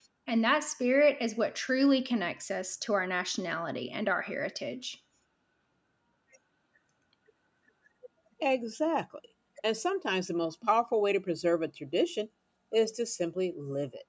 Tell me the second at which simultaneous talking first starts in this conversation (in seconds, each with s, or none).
none